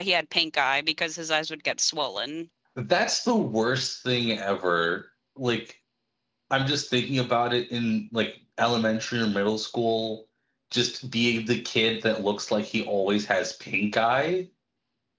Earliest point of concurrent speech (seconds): none

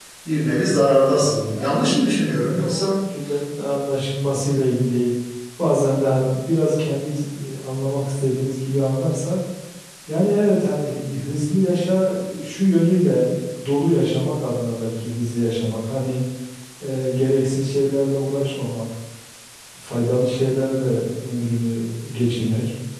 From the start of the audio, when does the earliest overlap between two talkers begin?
1 s

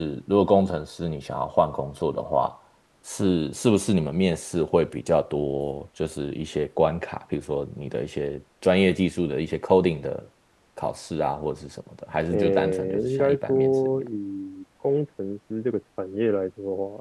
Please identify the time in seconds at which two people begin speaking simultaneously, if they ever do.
12 s

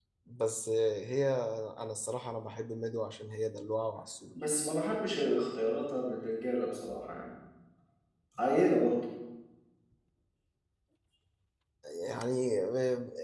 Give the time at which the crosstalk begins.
none

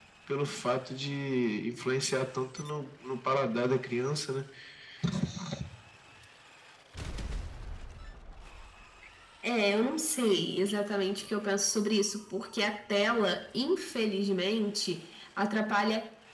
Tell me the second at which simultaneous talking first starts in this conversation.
none

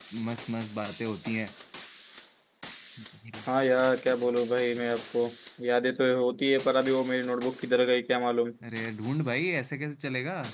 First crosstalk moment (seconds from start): none

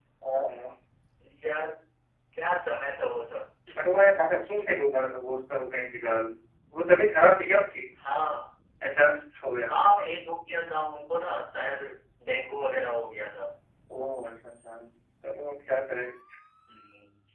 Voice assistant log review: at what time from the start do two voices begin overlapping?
none

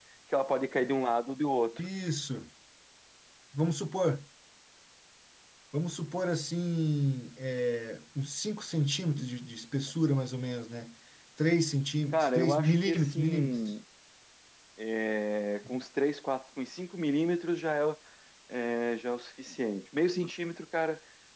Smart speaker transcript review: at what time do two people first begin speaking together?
12 s

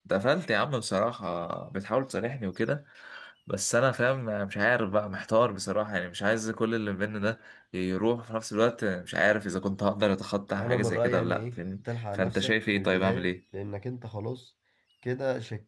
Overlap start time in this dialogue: 11 s

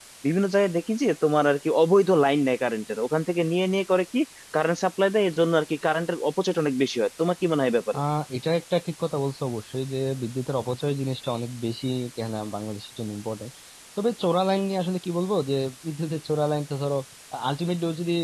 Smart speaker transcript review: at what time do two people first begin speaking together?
none

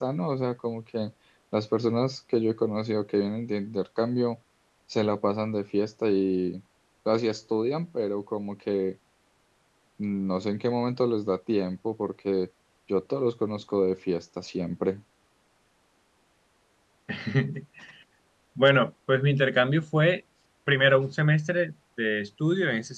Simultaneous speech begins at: none

